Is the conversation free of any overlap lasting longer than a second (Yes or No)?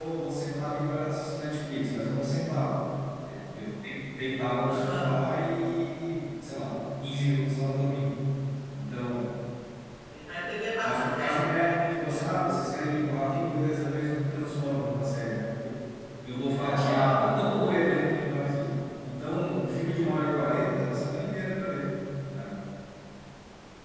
No